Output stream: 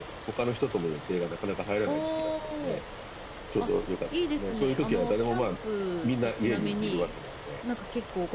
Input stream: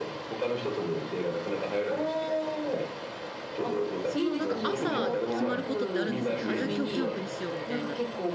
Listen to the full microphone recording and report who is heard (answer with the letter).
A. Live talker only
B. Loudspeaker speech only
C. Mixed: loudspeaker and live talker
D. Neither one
C